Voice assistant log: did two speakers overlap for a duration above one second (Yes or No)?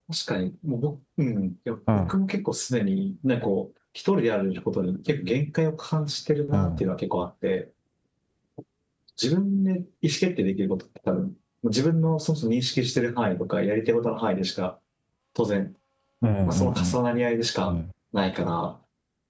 No